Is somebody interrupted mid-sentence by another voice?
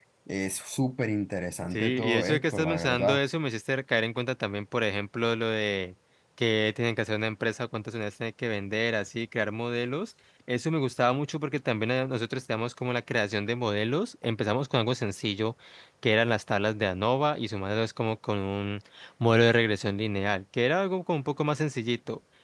Yes, from 1.7 s

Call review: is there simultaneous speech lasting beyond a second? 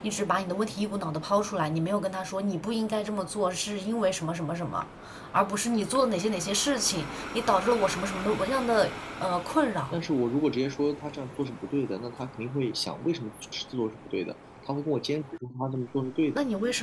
No

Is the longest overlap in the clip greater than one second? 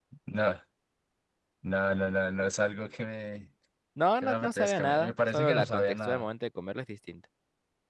Yes, from 4.2 s

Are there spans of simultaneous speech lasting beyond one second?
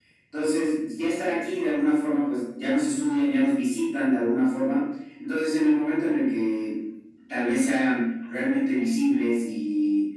No

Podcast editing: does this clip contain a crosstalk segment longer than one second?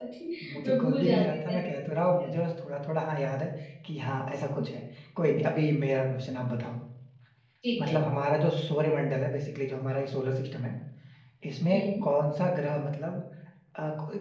Yes, from 0.6 s

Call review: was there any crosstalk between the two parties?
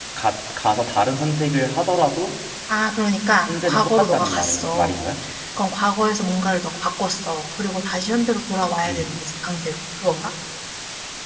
Yes, from 3.5 s

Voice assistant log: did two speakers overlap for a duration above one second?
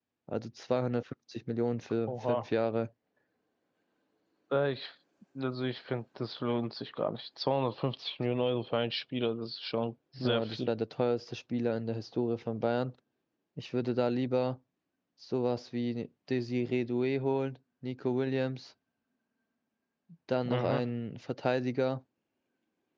No

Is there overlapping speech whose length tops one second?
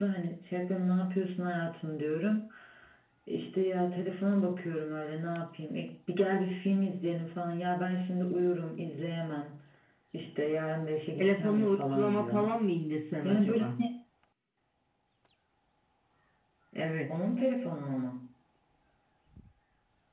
Yes, from 11.2 s

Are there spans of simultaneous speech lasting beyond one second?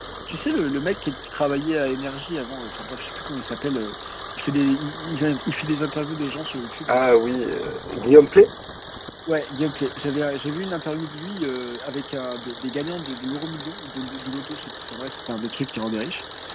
No

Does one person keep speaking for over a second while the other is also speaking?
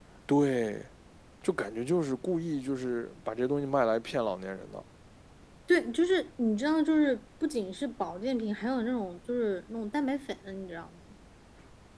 No

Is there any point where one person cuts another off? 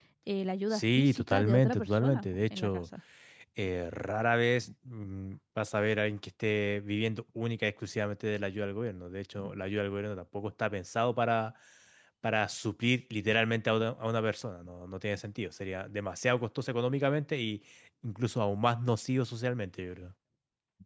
Yes, from 0.7 s

